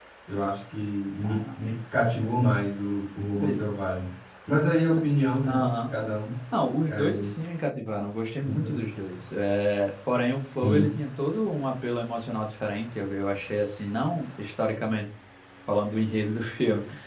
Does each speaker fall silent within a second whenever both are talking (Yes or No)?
Yes